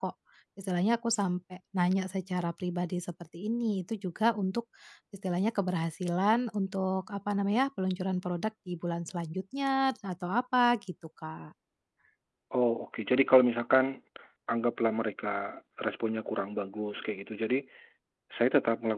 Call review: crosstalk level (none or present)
none